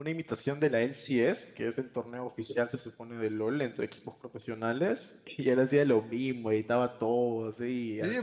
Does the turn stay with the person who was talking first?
No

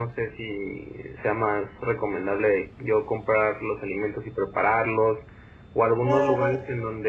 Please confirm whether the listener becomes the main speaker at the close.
No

